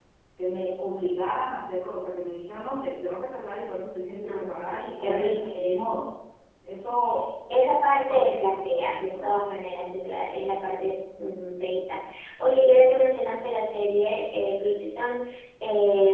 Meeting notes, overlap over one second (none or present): present